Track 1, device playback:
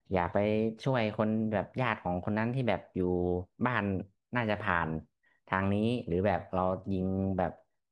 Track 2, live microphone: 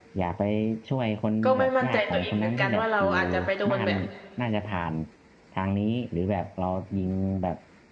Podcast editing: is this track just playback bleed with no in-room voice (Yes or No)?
No